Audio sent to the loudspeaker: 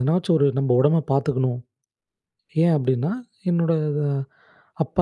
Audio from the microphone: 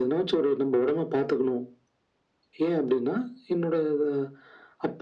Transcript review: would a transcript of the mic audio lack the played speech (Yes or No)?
No